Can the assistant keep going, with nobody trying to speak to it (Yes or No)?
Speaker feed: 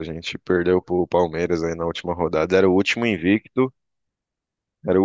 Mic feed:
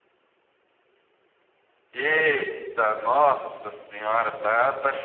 No